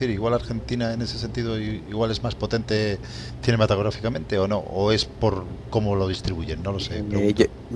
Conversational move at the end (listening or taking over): taking over